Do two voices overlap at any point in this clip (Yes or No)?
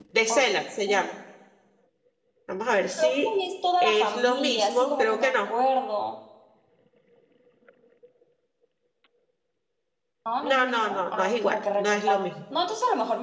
Yes